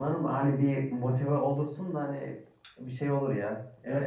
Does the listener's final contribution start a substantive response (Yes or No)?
Yes